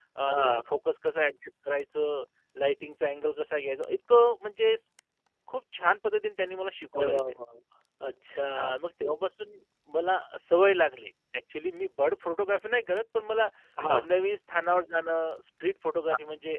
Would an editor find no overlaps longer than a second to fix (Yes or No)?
Yes